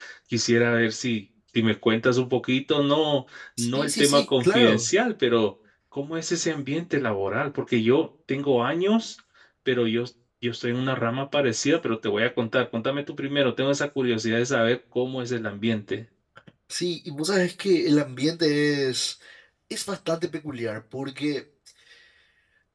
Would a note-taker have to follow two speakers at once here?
Yes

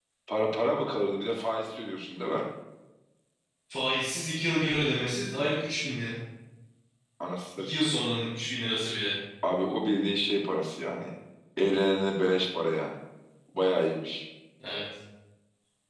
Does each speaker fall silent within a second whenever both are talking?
Yes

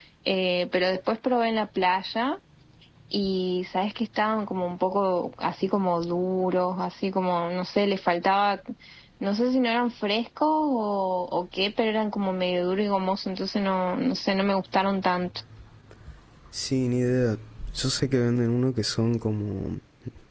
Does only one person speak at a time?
Yes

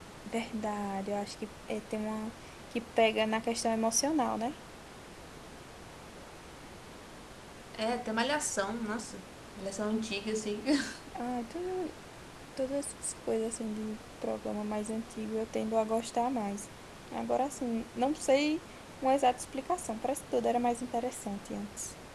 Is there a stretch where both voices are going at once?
No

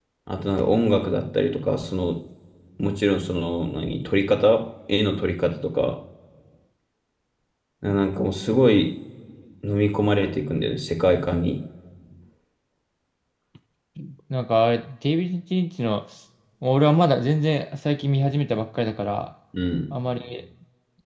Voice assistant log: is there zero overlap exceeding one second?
Yes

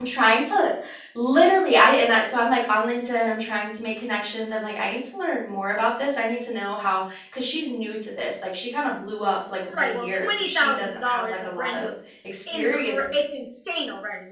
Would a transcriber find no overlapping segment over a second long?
No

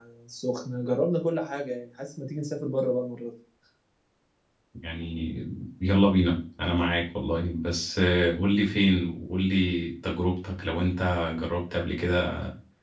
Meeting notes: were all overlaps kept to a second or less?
Yes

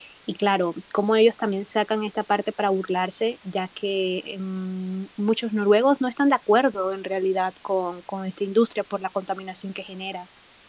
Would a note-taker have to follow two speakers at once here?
No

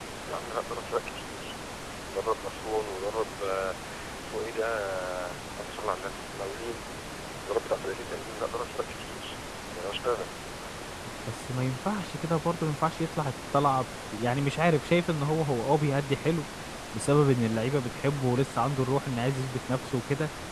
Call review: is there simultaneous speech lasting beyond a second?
No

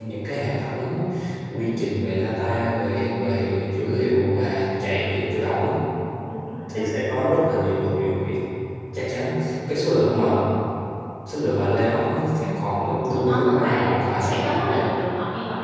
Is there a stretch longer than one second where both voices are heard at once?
Yes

